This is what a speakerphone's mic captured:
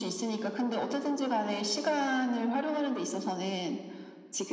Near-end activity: none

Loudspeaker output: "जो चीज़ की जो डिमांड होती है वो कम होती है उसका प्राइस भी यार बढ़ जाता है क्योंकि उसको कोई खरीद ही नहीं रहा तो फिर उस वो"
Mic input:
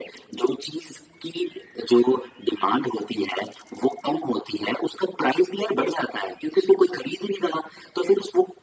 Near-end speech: none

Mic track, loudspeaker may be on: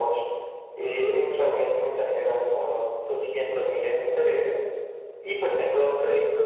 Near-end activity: none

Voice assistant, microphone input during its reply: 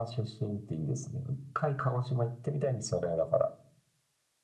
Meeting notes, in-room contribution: none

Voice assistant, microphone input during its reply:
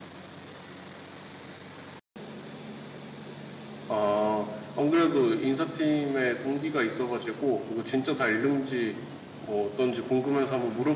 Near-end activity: present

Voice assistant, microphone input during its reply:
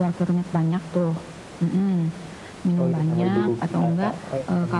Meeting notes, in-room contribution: present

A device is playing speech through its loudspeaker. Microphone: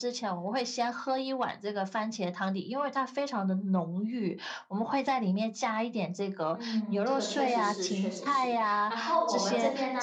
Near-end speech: present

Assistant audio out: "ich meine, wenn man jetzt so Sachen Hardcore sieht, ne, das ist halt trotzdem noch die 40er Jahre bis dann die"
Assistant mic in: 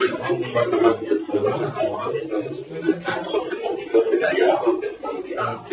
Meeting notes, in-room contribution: present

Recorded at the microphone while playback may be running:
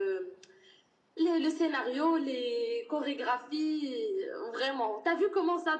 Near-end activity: none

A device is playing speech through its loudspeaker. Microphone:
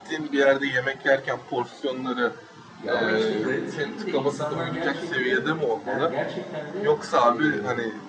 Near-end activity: present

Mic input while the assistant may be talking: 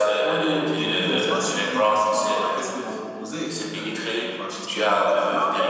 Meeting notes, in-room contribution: present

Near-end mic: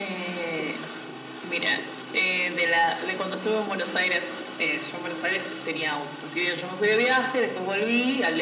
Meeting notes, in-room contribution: none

